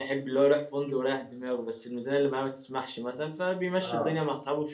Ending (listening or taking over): listening